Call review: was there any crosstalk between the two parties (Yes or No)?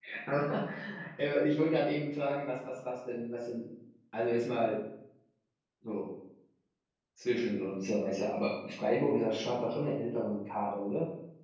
No